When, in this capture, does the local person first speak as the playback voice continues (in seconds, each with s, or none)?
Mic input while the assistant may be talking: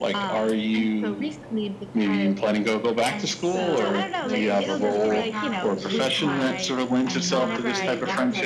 3.1 s